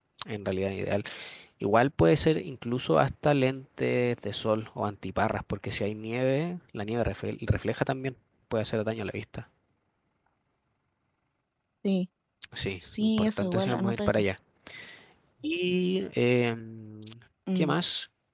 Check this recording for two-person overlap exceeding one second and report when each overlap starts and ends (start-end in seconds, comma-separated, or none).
12.9-14.2